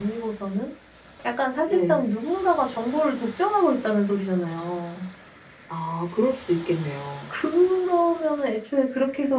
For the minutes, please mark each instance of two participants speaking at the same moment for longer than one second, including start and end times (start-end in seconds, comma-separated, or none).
none